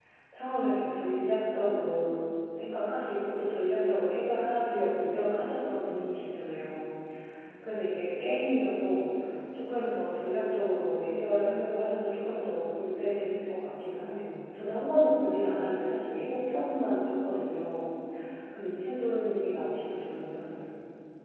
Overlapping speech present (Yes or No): No